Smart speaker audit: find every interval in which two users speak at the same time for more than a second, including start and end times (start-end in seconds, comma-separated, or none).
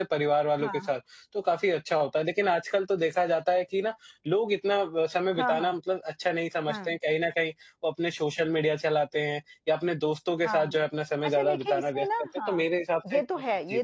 11.2-12.7